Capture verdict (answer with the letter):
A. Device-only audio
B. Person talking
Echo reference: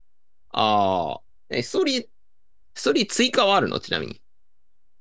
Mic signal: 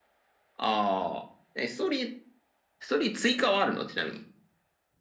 A